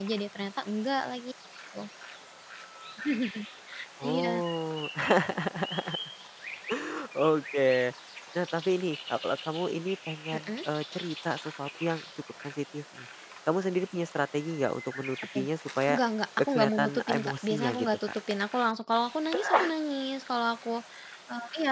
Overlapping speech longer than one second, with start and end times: 16.6-17.9

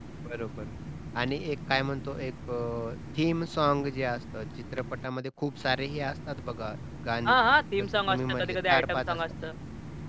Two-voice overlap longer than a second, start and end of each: 7.8-9.2

